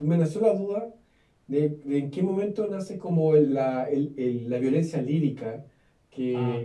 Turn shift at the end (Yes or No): No